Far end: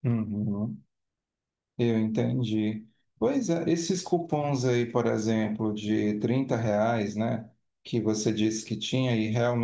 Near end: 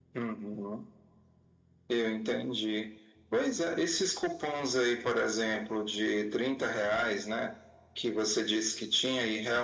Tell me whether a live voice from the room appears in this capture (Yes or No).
No